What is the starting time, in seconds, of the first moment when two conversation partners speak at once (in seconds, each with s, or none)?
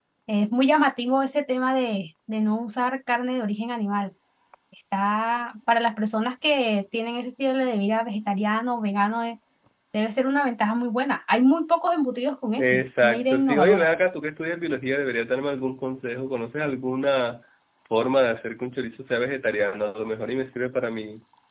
12.6 s